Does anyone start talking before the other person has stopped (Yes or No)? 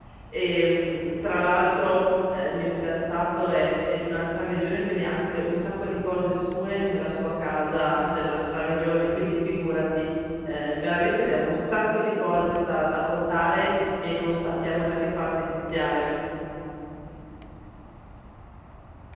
No